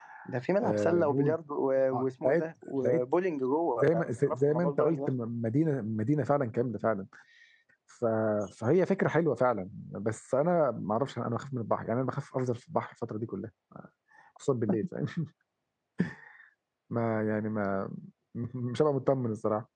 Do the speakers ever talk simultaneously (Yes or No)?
Yes